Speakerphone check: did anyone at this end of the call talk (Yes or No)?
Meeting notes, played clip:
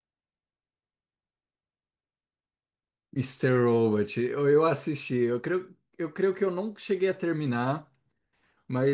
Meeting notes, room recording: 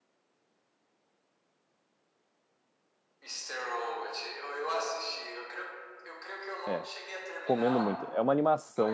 Yes